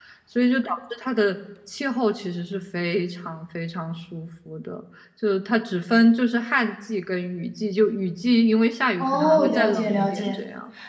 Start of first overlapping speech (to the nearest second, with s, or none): 9 s